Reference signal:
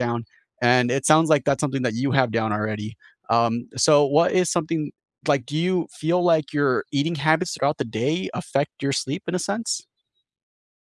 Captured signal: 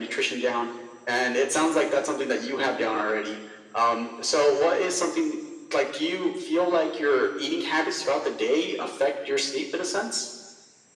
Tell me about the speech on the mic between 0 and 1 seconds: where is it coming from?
echo only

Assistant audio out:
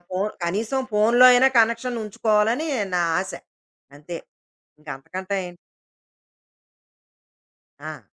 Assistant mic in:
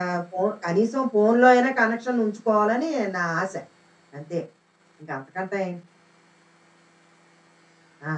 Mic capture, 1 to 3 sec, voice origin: echo only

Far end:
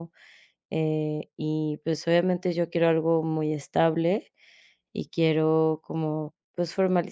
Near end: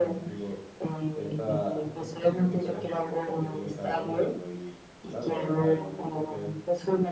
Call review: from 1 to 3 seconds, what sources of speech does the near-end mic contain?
both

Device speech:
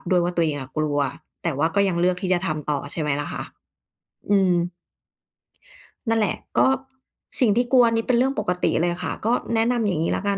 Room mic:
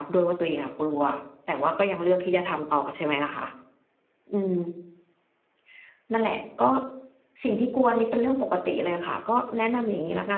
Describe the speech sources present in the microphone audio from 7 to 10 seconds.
echo only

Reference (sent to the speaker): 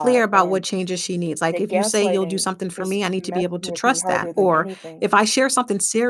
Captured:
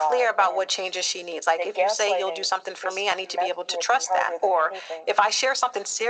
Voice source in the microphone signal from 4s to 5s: echo only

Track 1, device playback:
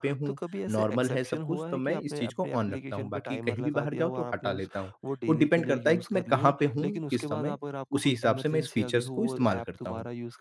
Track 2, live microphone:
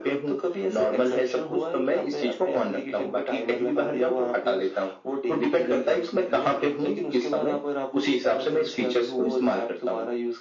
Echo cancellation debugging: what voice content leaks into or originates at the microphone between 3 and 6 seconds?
echo only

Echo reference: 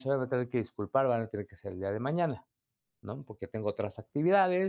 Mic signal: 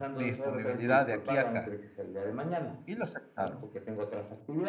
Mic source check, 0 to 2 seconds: both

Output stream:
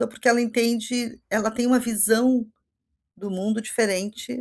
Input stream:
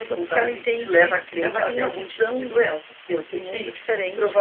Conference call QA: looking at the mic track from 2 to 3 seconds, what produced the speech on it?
both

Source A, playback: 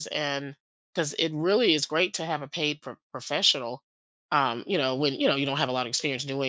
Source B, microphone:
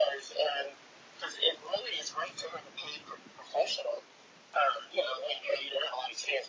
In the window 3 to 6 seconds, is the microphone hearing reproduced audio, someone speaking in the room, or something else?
echo only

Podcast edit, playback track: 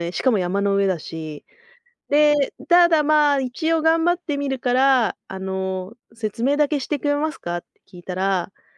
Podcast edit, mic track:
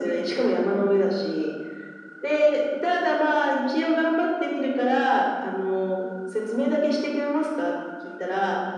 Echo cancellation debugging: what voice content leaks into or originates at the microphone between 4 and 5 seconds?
echo only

